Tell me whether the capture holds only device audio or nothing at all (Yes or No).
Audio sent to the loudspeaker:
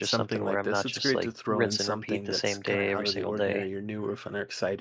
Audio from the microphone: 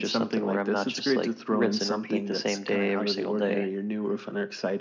Yes